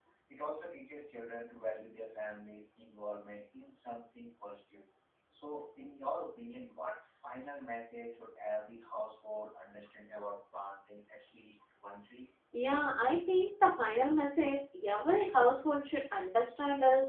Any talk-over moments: No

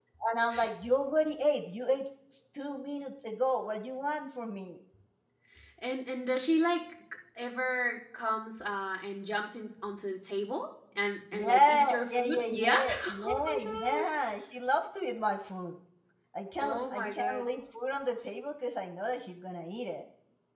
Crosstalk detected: Yes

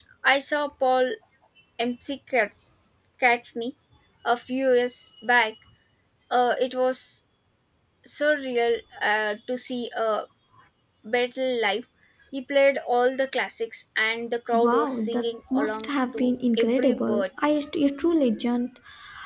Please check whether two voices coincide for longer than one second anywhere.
Yes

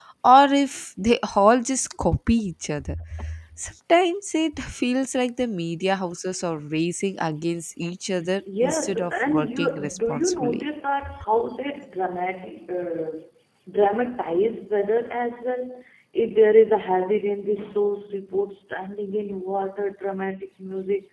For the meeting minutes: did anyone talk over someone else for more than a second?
Yes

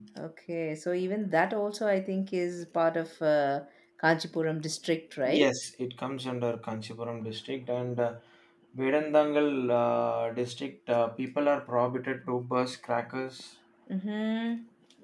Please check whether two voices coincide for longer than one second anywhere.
No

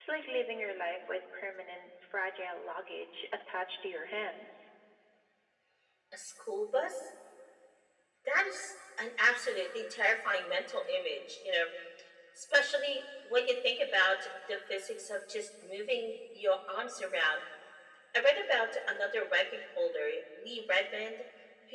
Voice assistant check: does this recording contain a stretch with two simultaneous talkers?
No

